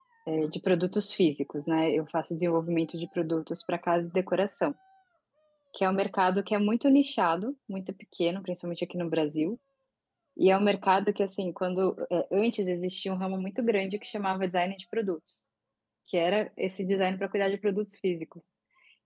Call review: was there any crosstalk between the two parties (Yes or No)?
No